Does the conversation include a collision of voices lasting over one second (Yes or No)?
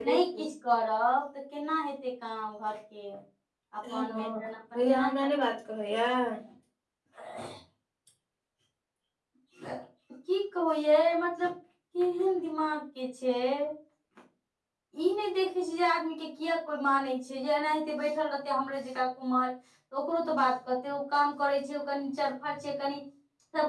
Yes